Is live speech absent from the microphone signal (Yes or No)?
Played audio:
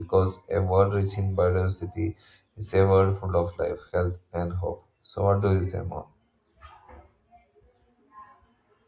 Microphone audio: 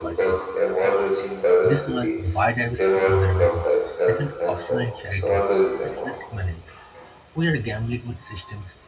No